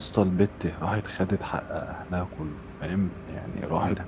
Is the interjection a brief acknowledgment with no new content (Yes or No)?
Yes